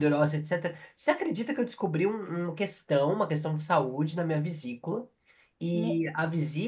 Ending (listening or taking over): listening